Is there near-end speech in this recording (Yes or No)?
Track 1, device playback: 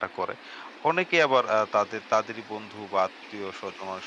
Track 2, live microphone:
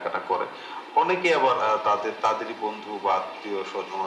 No